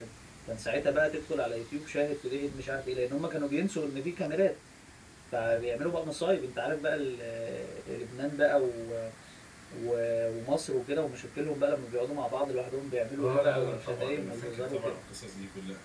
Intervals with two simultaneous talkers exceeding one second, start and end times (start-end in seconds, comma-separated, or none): 13.2-15.0